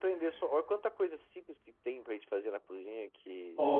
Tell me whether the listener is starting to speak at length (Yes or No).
Yes